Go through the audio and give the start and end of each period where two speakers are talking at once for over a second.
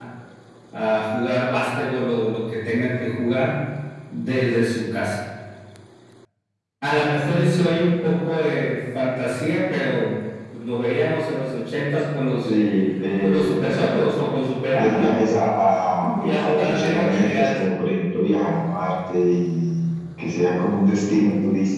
16.2-17.6

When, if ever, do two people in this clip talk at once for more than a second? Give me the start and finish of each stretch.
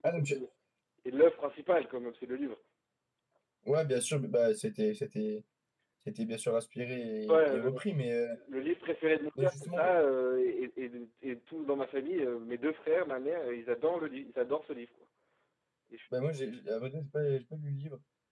none

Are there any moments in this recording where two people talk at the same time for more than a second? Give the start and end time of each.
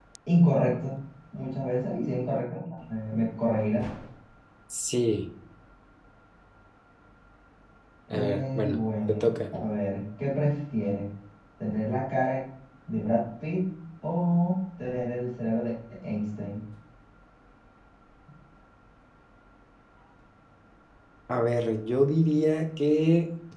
8.1-9.4

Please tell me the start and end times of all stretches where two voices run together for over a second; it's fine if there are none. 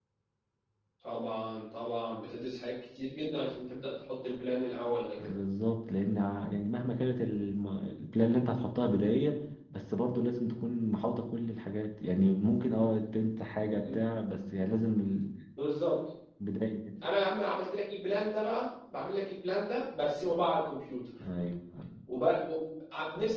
none

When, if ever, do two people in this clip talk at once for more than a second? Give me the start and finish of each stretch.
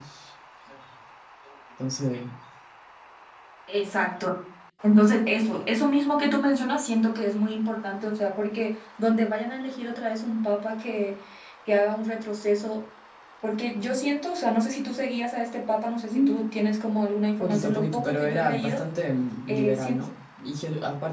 17.4-18.8

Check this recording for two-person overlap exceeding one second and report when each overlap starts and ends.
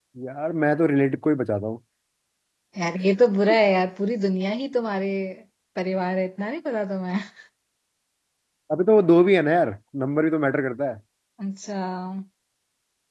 none

